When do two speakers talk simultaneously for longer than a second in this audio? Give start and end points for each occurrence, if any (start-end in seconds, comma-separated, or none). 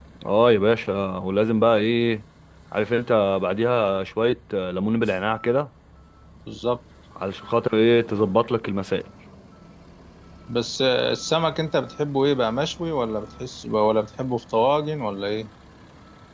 none